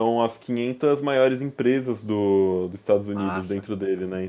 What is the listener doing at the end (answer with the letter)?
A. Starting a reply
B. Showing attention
B